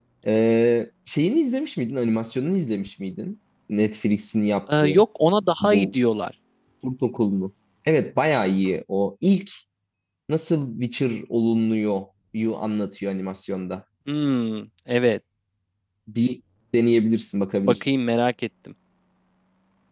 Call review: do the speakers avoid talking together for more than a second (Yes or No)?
Yes